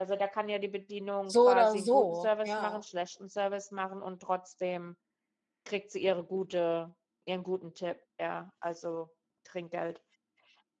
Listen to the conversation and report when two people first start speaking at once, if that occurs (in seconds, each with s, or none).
1.3 s